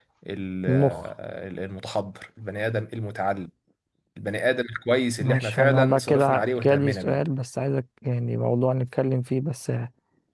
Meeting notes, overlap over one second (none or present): present